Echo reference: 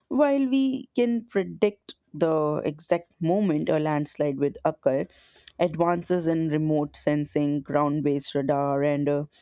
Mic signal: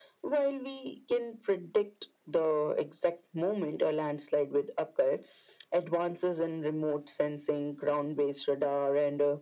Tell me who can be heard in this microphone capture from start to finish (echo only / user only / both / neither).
echo only